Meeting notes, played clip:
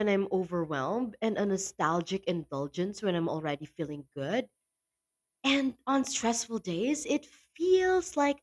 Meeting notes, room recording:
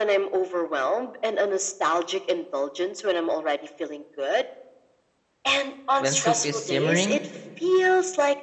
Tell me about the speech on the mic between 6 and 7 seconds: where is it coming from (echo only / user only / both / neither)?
both